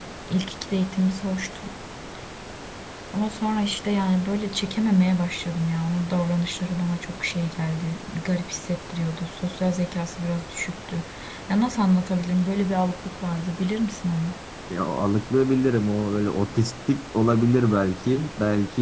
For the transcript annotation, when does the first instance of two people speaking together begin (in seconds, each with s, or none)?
none